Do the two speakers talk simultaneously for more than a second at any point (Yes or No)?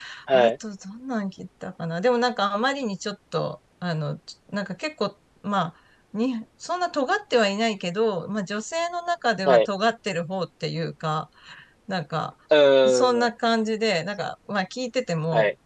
No